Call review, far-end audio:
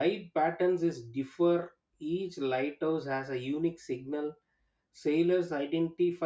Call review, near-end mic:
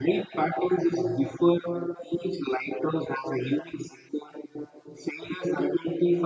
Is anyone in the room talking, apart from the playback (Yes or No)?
No